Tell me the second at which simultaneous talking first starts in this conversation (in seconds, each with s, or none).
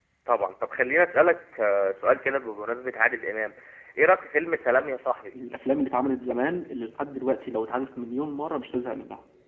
none